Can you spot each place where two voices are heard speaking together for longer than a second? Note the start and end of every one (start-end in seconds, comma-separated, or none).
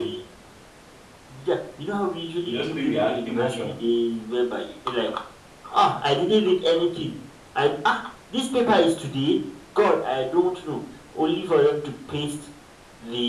2.5-3.7